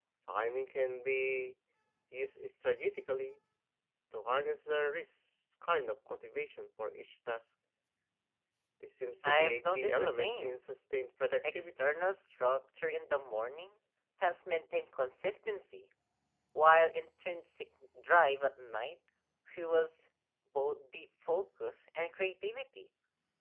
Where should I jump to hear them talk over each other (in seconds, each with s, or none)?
9.2 s